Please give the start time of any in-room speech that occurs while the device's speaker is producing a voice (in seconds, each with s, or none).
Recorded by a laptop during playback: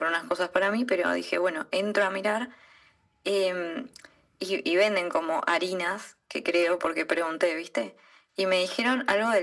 none